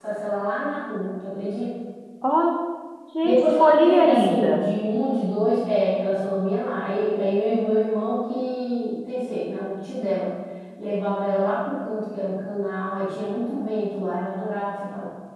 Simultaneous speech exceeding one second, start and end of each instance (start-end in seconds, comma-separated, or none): 3.2-4.7